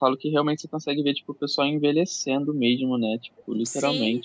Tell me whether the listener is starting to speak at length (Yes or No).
Yes